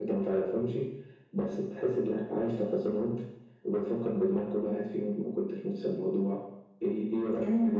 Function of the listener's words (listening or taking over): listening